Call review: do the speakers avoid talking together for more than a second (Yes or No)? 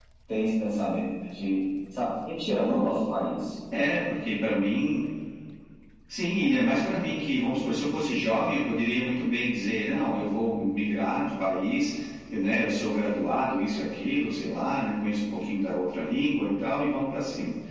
Yes